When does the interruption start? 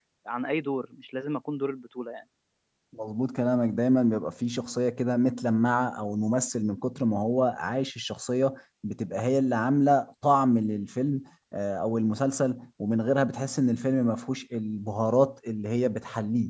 none

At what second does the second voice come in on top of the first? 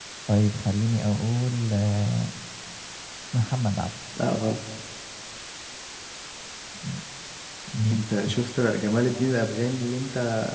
none

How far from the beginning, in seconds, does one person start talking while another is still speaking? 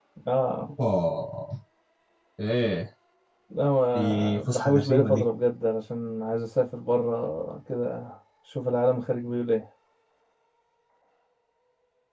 3.9 s

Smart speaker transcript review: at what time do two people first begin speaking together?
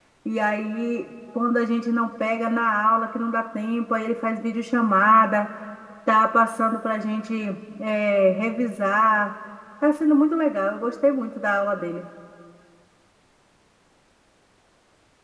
none

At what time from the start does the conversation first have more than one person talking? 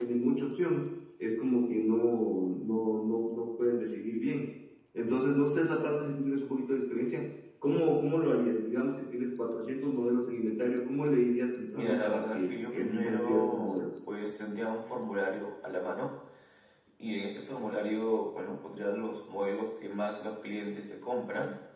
11.7 s

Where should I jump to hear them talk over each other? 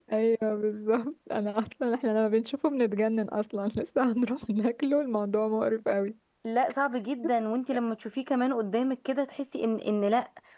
none

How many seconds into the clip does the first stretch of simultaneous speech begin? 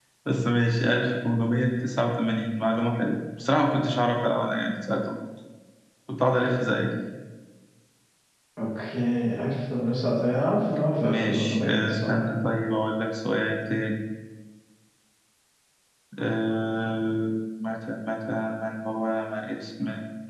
11.0 s

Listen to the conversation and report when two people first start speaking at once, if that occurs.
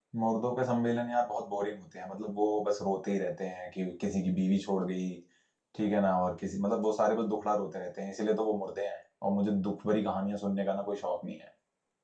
none

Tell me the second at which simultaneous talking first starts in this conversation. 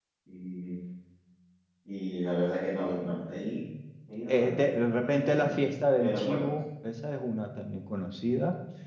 4.3 s

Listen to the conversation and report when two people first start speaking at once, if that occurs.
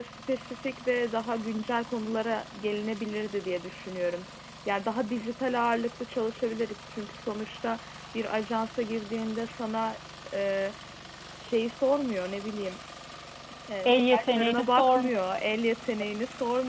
13.8 s

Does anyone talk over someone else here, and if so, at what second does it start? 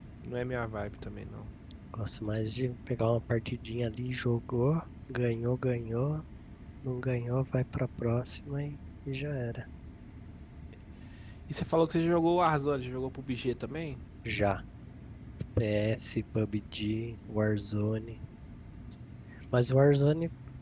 none

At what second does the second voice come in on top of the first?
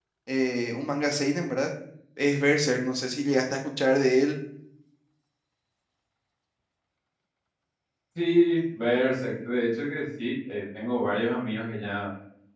none

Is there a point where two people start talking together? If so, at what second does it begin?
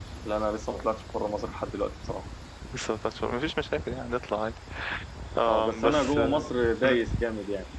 5.5 s

